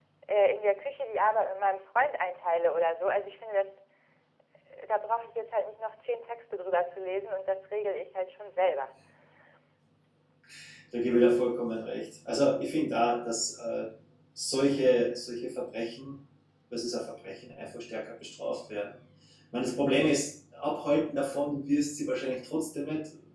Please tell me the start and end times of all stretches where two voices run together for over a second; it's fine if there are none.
none

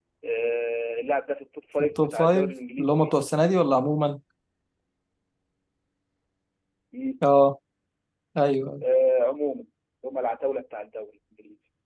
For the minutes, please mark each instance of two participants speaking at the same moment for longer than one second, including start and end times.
1.8-3.1

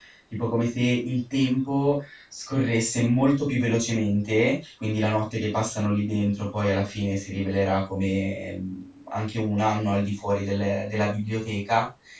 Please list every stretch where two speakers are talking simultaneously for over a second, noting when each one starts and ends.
none

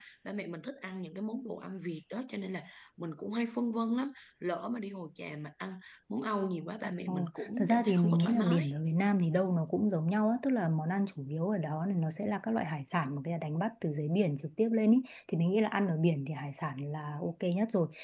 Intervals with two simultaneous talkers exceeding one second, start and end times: 7.1-8.7

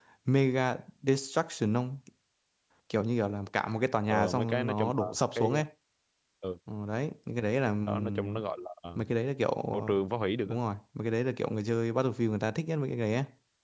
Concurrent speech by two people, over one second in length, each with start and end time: 4.1-5.5

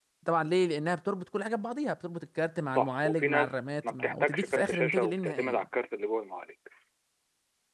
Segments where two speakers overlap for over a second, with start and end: 2.7-5.7

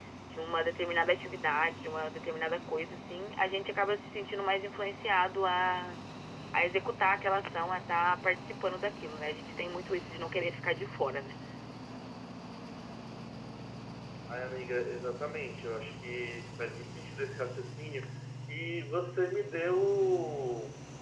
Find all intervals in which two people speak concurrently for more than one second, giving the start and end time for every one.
none

